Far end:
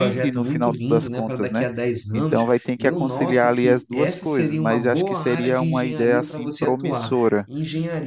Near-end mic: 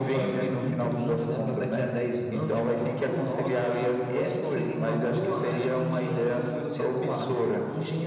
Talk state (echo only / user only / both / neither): echo only